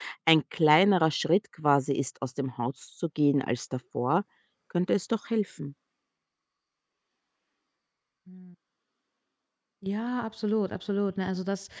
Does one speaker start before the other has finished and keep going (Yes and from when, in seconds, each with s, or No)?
No